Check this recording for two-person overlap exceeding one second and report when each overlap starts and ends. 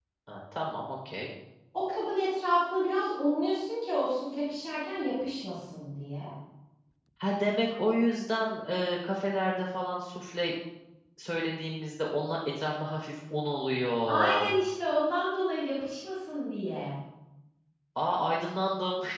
none

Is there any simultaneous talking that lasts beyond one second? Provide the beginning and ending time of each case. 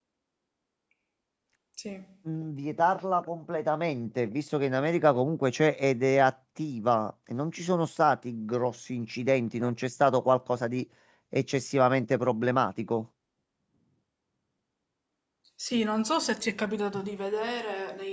none

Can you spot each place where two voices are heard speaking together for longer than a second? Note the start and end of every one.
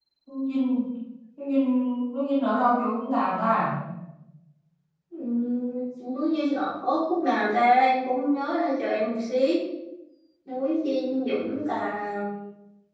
none

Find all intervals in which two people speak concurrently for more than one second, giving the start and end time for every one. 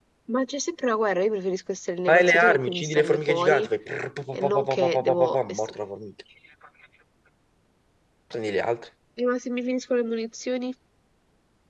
2.1-3.7, 4.3-5.7

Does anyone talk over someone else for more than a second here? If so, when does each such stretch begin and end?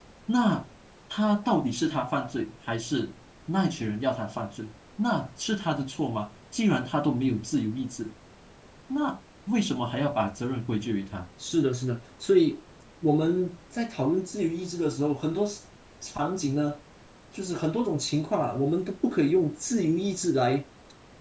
none

